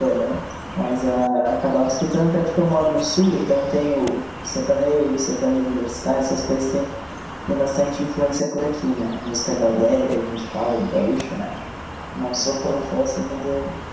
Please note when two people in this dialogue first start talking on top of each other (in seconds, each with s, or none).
none